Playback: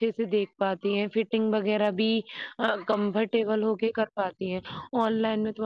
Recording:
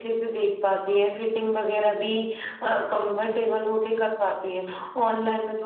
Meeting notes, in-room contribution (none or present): none